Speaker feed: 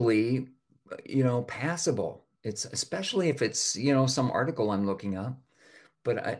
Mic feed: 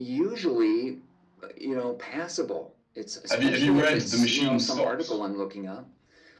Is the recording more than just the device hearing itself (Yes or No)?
Yes